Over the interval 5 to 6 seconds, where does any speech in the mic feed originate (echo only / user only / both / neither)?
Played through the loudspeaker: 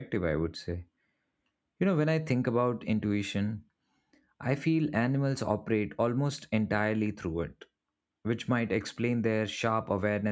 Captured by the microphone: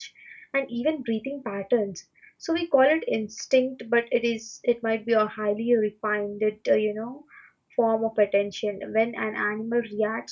user only